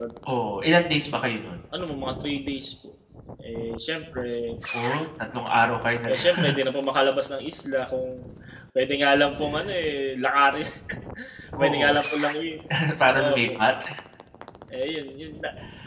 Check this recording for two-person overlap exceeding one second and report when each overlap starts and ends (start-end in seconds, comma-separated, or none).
none